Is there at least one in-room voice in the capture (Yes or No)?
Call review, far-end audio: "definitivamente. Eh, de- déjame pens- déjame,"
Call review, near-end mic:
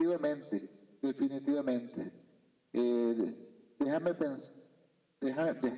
No